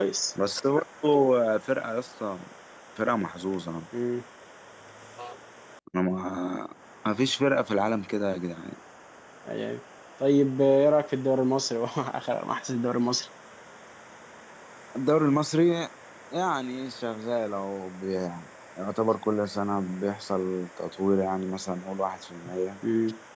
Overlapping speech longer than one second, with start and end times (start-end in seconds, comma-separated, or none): none